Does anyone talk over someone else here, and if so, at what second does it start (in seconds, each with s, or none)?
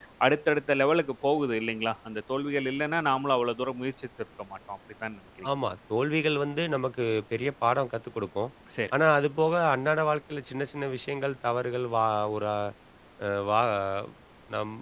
none